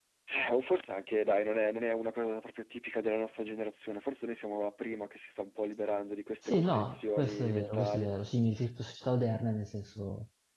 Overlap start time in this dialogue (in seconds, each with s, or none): 6.5 s